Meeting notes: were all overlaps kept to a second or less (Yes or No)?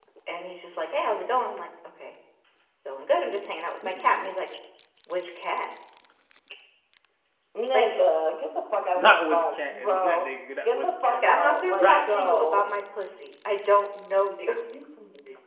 No